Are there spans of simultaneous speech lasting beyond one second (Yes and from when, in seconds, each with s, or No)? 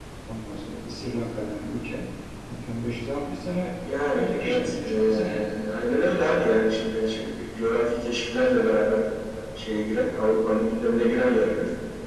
Yes, from 4.1 s